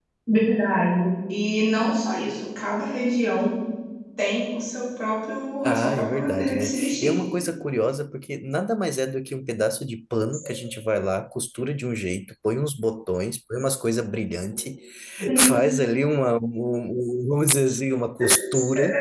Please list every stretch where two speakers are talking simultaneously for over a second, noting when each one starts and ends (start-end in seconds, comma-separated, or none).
5.6-7.2